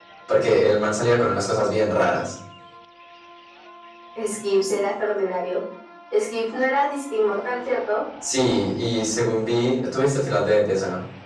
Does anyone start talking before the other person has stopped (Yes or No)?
No